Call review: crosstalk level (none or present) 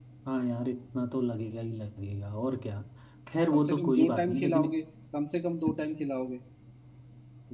present